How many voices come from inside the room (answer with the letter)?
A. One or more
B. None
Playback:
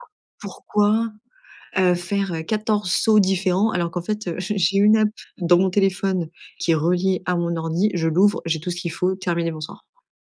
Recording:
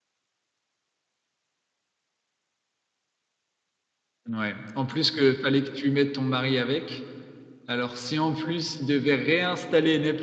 A